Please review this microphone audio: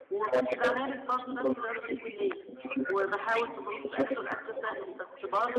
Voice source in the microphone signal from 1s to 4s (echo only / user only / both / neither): both